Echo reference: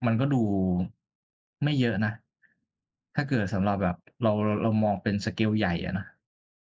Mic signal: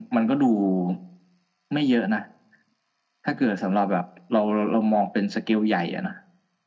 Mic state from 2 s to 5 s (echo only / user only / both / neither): echo only